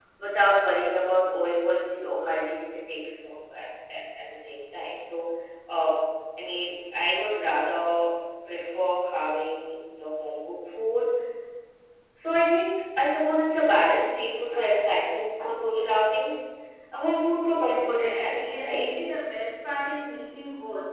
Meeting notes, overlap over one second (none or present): present